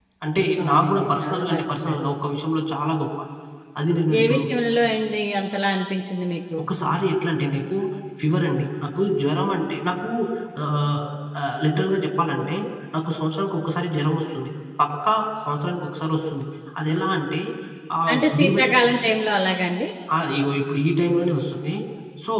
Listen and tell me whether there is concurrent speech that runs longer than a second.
Yes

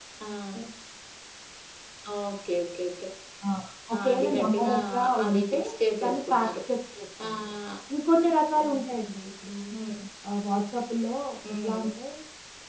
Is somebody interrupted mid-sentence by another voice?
Yes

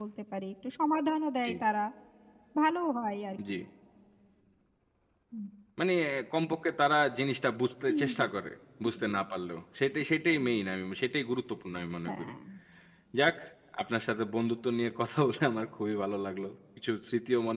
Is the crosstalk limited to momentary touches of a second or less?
Yes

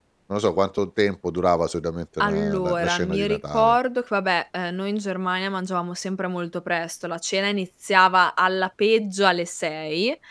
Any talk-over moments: Yes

